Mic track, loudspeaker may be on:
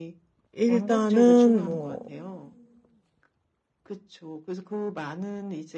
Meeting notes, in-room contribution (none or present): present